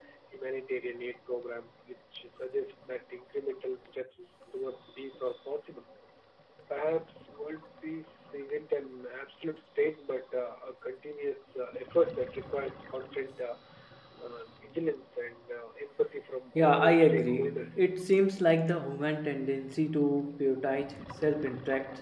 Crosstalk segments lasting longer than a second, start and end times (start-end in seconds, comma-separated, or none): 16.6-17.9